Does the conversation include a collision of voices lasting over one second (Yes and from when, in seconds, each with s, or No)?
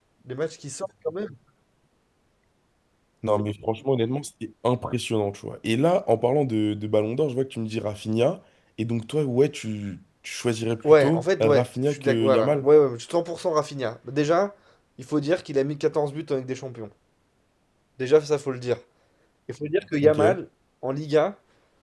Yes, from 11.0 s